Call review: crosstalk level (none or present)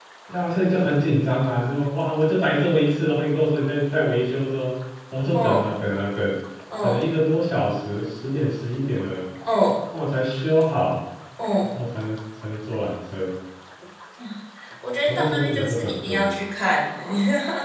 present